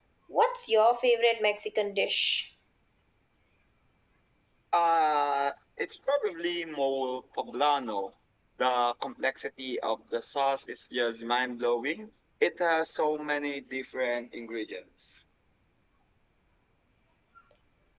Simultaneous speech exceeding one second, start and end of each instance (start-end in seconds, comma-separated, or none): none